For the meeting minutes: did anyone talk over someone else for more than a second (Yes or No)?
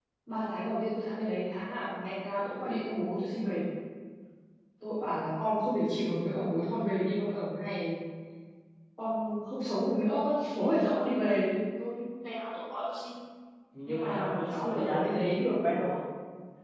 Yes